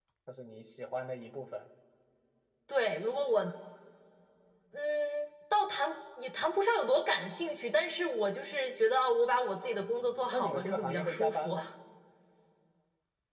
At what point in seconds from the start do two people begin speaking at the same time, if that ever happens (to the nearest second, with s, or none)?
10 s